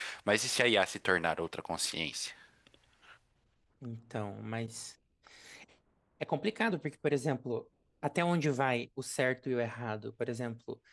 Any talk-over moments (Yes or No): No